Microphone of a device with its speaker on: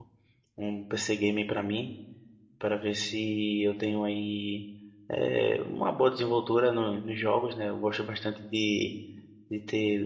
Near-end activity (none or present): present